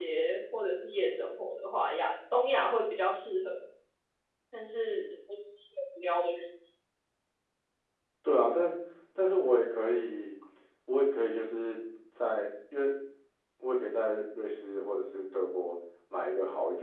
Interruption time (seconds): none

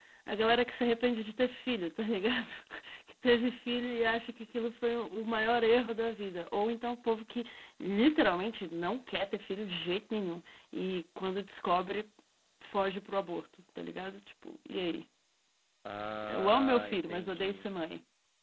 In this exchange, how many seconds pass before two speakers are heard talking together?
16.3 s

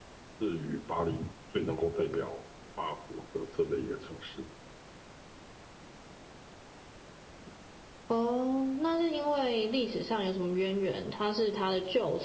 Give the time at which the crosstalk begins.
none

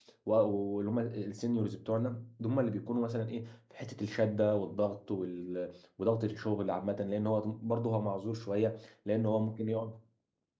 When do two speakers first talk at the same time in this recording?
none

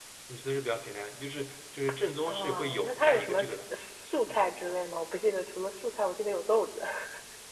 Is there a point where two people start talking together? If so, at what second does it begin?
2.3 s

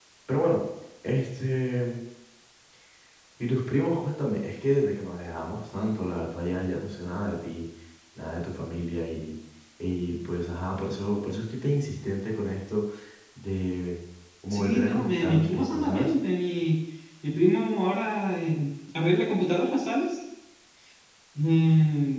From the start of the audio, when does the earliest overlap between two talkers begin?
14.5 s

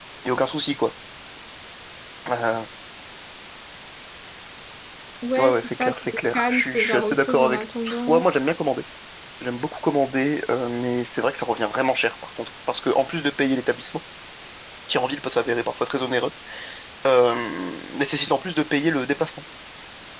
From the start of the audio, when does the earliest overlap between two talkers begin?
5.4 s

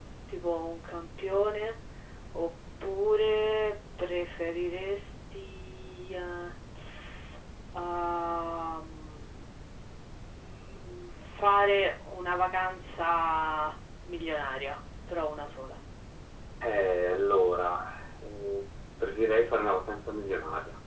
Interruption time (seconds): none

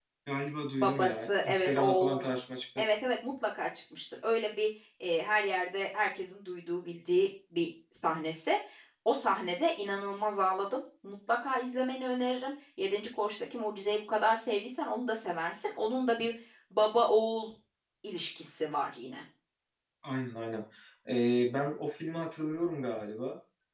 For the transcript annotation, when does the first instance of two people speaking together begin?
0.8 s

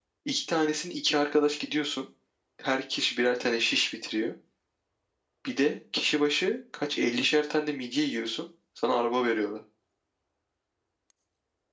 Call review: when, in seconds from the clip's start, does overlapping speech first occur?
none

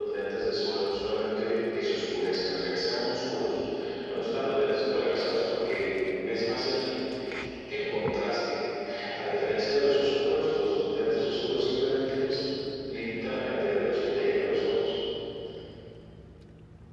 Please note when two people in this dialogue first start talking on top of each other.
none

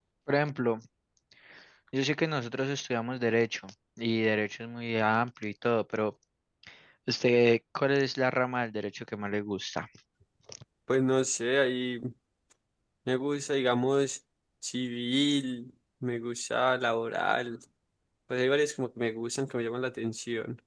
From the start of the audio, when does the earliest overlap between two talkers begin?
none

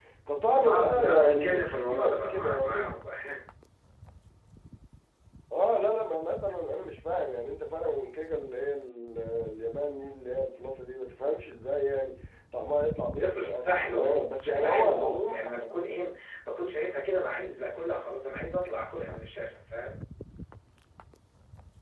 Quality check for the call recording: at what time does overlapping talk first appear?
0.5 s

